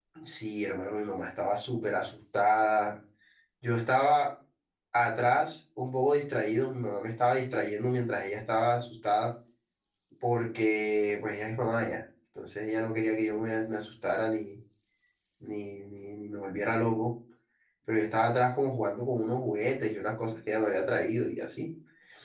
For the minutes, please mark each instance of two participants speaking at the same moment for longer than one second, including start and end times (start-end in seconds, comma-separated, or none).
none